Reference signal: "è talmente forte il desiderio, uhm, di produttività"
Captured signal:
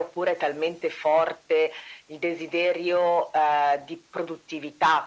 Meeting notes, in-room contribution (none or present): none